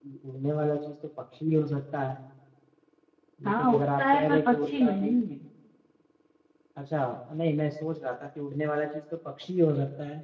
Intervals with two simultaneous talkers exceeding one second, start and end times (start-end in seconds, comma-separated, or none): 3.5-5.1